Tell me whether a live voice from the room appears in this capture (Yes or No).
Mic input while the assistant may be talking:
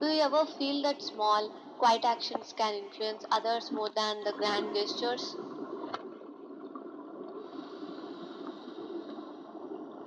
No